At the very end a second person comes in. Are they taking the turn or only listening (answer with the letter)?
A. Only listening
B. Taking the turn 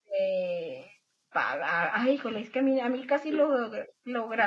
A